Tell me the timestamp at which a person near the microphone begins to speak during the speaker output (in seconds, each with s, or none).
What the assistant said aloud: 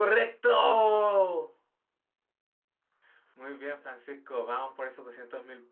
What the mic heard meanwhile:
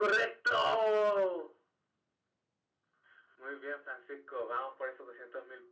none